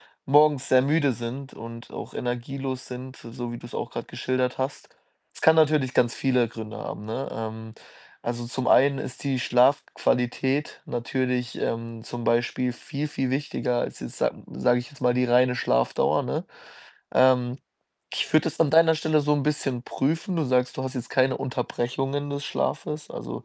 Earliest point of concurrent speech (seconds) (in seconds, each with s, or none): none